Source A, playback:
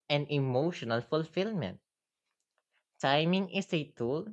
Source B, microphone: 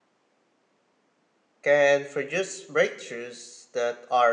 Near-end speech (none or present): present